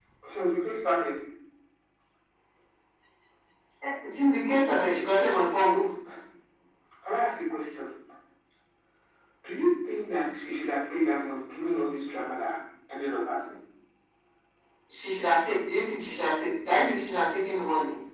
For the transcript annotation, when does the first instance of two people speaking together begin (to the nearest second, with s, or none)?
none